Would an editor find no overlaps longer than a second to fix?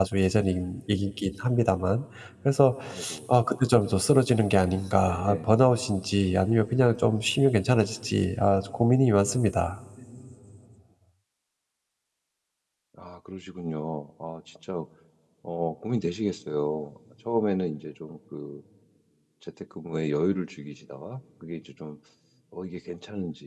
Yes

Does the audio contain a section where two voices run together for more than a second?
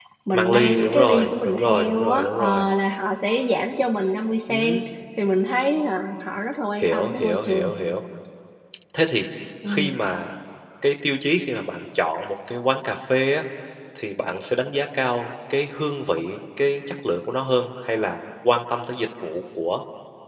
Yes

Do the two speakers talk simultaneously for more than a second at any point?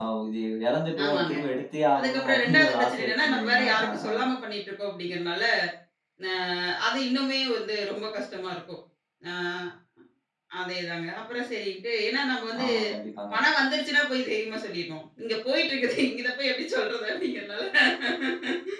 Yes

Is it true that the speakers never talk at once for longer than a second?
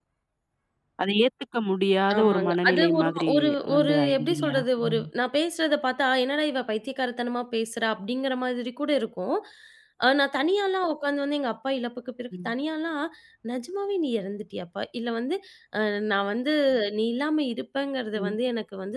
No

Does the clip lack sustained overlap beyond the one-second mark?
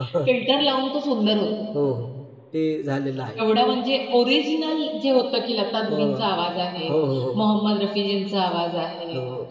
Yes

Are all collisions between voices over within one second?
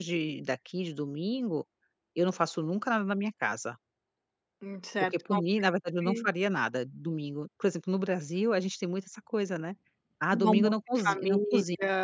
No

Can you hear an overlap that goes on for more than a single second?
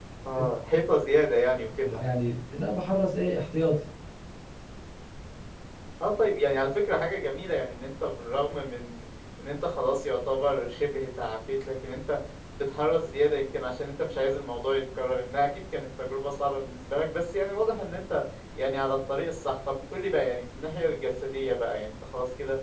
No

